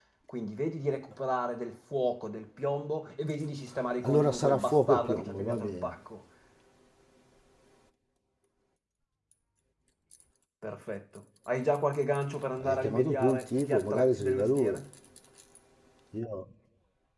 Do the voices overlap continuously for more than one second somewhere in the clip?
Yes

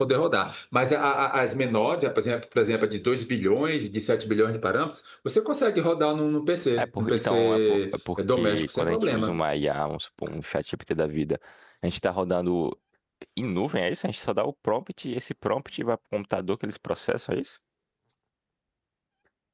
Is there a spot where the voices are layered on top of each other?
Yes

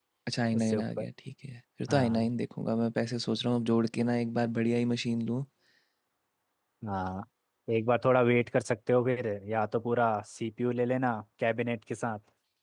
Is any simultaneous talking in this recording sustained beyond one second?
No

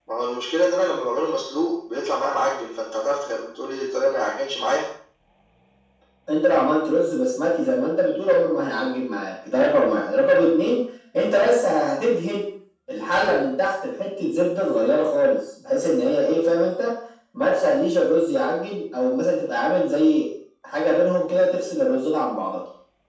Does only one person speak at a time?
Yes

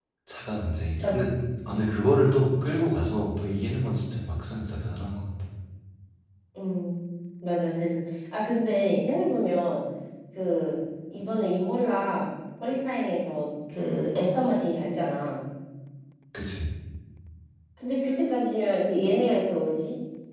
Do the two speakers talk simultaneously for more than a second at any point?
No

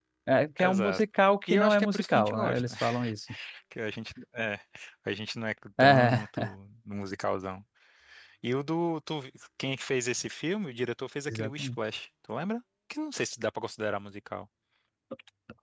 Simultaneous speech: Yes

